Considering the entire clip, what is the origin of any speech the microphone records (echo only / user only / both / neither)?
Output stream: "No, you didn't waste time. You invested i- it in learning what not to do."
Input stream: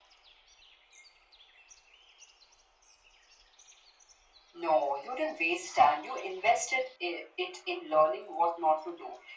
echo only